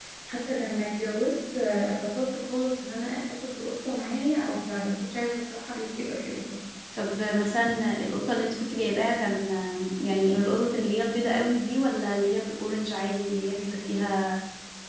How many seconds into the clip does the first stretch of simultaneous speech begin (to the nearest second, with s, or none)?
none